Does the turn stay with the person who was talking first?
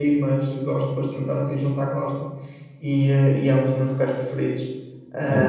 No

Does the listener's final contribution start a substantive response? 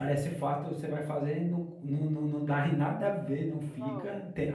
No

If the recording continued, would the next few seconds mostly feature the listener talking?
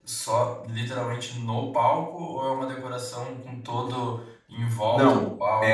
Yes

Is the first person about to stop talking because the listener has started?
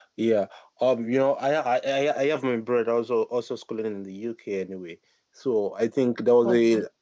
No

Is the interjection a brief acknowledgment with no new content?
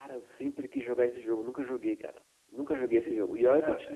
Yes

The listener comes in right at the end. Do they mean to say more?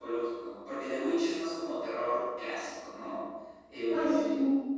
Yes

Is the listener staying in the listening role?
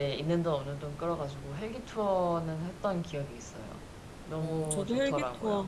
No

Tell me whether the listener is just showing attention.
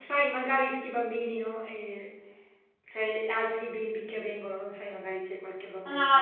No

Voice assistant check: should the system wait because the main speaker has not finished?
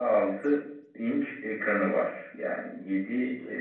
Yes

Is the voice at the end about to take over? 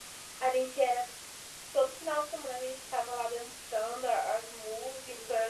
Yes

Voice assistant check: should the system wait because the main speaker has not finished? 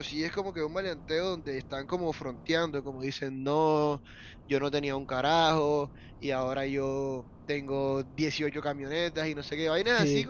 Yes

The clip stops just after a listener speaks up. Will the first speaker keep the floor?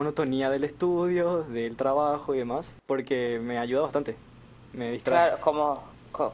No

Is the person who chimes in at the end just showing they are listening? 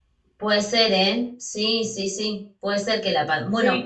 Yes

